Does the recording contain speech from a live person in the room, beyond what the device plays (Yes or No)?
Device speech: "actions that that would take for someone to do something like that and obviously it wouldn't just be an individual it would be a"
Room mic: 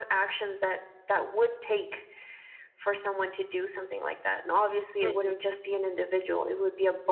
Yes